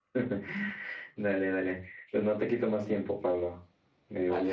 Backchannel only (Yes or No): No